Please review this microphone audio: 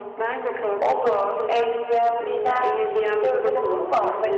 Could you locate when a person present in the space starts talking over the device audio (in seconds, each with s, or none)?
0.8 s